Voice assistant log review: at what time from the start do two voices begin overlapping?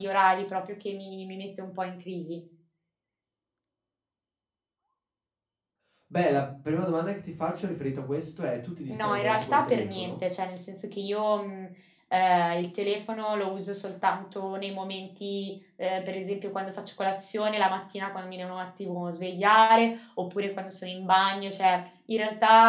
8.9 s

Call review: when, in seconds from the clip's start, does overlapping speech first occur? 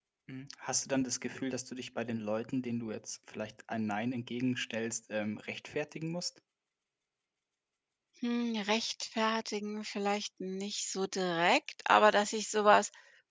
none

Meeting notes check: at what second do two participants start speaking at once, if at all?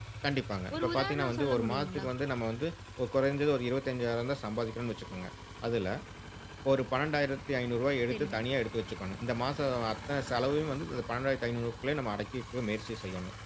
0.7 s

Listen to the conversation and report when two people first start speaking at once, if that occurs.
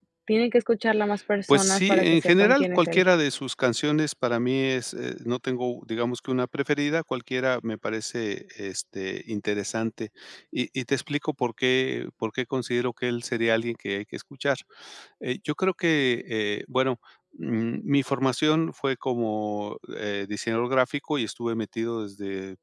1.5 s

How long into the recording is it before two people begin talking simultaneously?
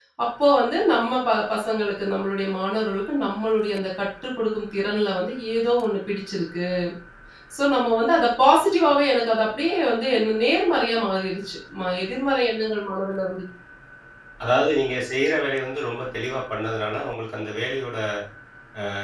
none

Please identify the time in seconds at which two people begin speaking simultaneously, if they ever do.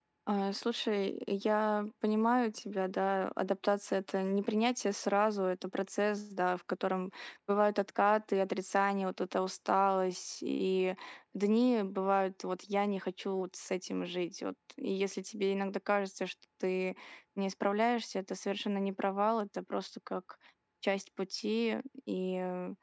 none

